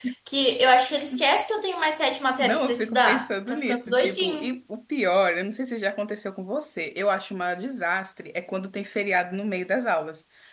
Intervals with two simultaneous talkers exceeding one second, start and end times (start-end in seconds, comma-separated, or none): 2.4-4.5